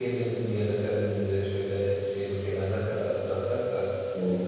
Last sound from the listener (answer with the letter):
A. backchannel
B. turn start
A